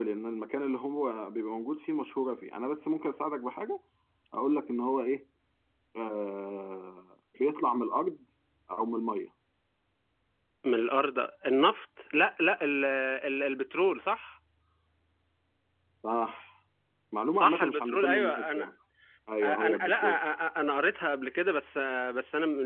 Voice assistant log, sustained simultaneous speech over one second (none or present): present